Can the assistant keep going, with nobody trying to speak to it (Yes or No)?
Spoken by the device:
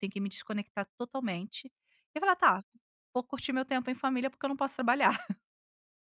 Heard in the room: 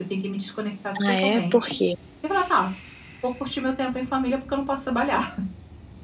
No